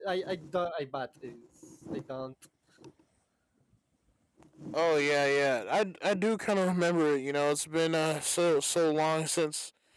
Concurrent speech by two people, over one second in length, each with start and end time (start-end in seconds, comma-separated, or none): none